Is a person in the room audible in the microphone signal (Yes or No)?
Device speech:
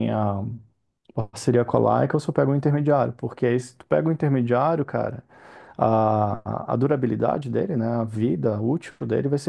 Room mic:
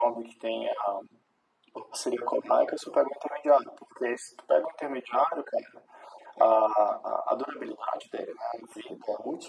No